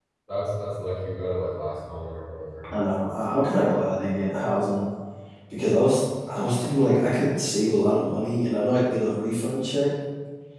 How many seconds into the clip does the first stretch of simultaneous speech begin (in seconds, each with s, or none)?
none